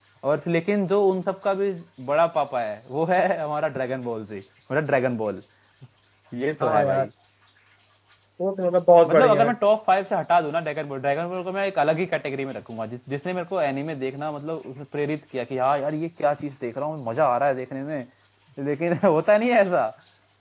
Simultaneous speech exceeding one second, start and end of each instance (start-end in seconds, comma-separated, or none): none